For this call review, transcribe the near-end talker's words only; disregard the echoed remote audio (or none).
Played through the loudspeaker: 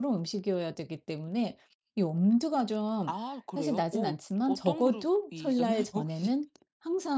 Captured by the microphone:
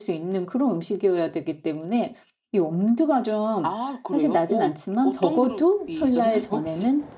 none